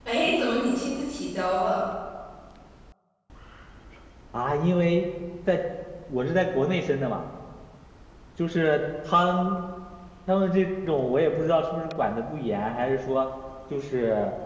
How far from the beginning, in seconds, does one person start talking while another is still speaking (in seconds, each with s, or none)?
none